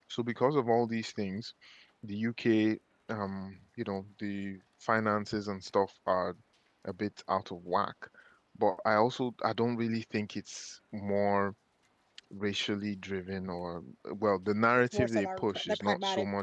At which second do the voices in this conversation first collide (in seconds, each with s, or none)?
14.9 s